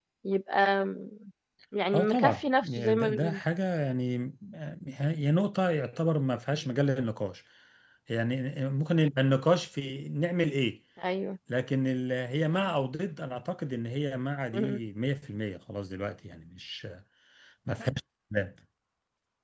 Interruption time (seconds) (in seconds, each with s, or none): 1.9 s